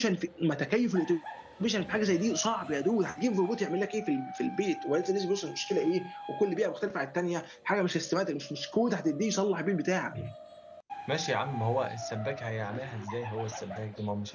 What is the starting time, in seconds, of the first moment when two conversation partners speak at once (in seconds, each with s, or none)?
none